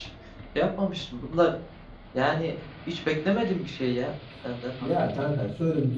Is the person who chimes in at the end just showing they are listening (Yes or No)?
No